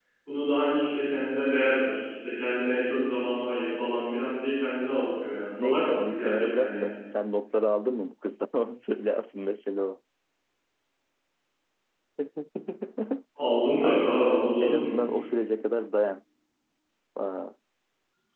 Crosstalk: present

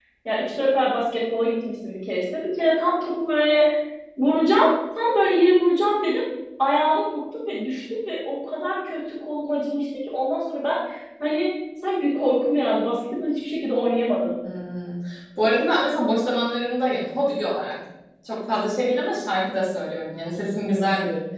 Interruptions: none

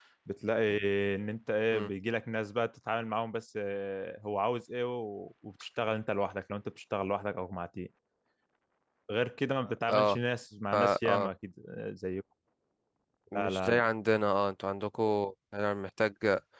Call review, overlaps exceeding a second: none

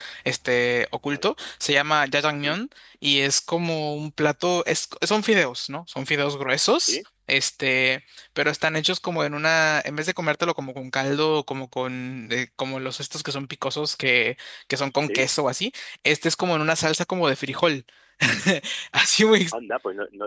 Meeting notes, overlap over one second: none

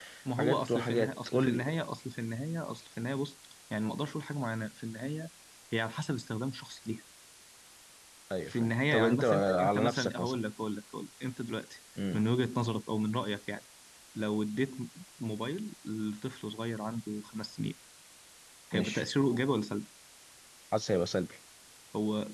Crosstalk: present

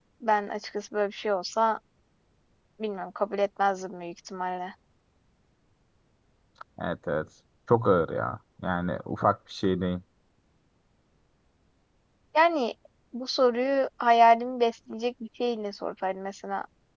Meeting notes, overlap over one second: none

